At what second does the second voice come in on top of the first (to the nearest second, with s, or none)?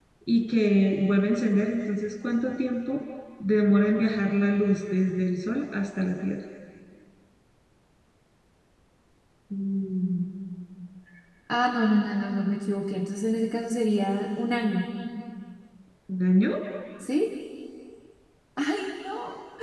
none